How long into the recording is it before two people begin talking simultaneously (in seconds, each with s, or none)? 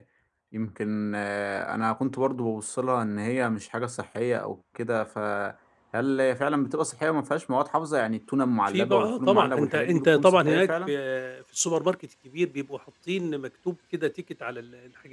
8.7 s